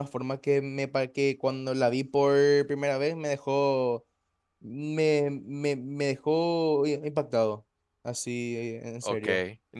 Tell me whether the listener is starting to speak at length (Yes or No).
Yes